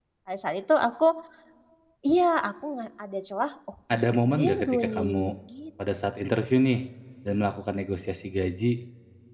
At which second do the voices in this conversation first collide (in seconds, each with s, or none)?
3.9 s